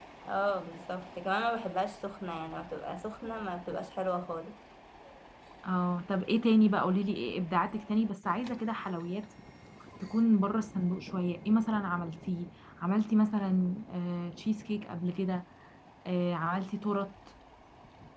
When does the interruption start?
none

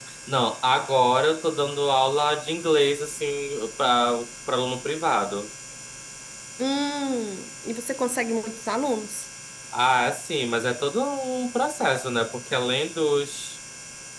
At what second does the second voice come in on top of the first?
none

